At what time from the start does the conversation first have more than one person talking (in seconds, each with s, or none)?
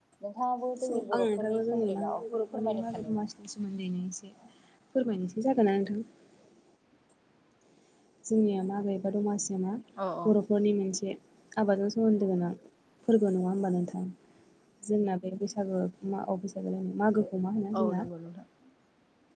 0.8 s